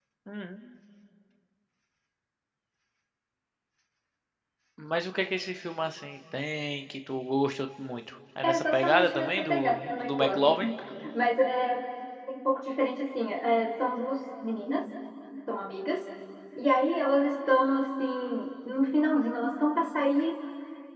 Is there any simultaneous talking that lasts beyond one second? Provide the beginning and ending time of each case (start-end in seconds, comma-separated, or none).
8.4-10.5